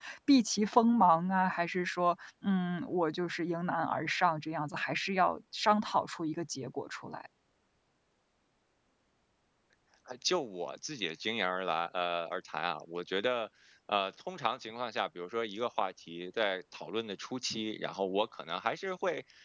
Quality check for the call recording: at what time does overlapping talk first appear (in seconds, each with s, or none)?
none